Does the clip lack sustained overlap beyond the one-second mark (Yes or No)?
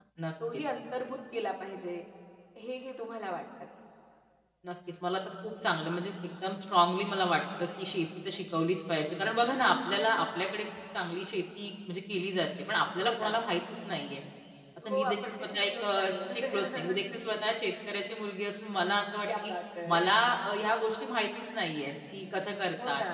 No